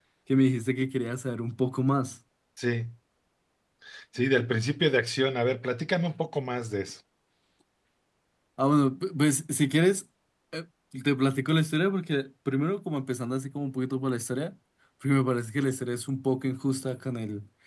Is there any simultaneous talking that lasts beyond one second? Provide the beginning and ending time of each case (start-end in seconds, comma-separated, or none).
none